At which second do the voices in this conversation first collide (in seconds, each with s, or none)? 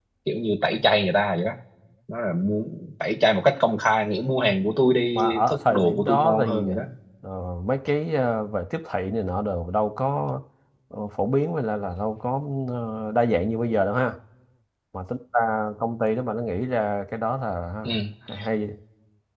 5.2 s